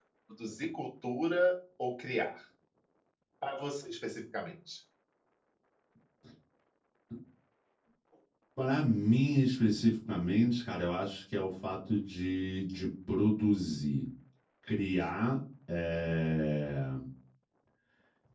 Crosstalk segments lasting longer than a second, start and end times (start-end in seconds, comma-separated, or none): none